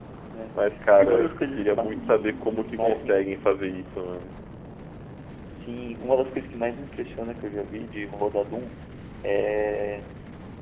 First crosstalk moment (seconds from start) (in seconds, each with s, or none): 0.9 s